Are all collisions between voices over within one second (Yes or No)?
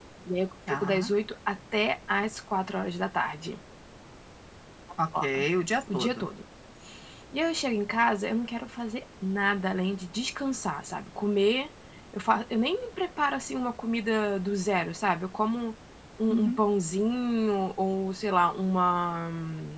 Yes